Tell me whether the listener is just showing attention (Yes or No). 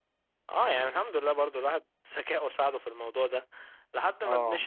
Yes